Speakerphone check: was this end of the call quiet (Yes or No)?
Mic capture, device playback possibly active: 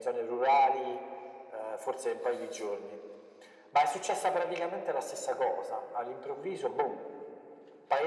Yes